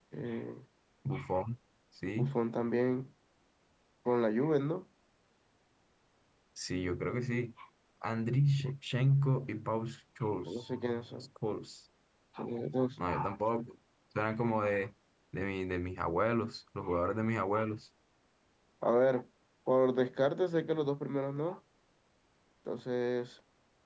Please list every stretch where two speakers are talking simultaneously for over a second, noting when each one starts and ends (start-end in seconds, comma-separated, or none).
none